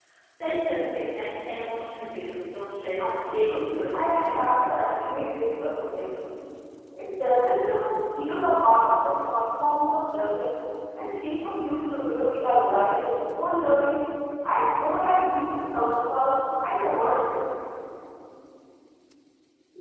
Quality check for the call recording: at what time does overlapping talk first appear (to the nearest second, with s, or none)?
3 s